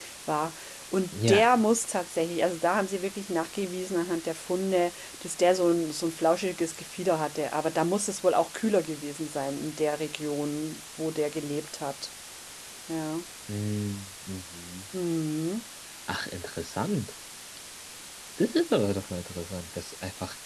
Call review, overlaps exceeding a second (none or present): none